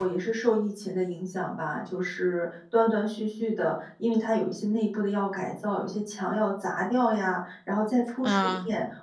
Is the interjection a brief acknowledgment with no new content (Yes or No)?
Yes